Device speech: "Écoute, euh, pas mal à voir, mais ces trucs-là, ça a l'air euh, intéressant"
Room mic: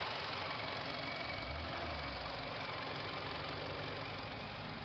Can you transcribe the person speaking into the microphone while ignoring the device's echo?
none

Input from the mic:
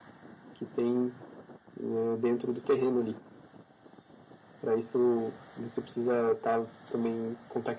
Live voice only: none

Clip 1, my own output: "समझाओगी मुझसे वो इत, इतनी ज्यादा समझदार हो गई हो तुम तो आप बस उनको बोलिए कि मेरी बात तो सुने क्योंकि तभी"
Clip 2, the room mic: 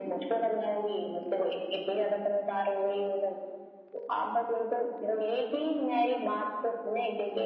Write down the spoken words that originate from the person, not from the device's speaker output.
none

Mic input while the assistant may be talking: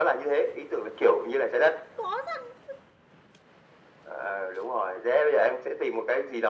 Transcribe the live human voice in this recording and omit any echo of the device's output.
không có răng

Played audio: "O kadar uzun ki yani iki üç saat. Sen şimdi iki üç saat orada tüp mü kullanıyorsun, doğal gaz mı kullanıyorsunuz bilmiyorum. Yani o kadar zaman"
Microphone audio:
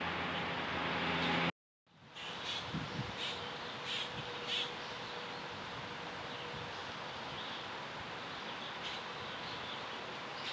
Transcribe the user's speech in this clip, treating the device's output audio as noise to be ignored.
none

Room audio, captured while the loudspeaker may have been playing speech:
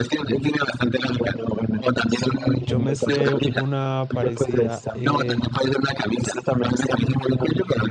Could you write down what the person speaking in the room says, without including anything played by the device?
yo me sé una parecida. eh,

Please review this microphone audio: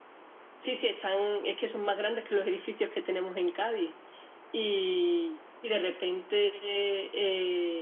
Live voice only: none

